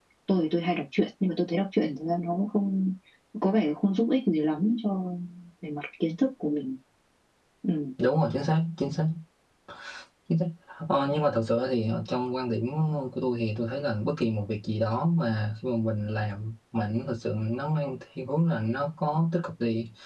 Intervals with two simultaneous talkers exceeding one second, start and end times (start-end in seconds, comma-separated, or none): none